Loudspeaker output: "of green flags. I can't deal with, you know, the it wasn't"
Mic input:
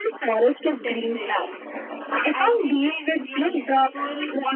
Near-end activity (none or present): present